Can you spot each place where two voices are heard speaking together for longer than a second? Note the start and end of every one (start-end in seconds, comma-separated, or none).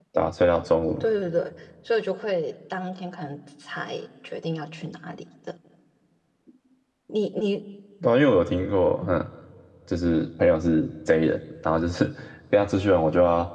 none